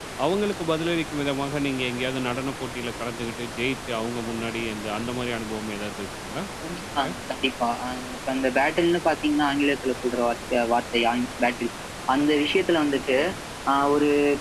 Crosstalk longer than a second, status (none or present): none